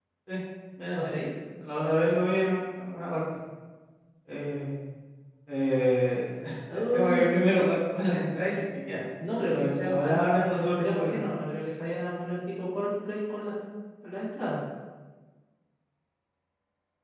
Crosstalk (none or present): present